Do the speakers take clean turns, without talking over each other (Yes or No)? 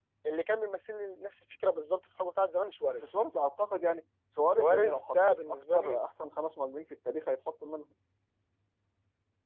No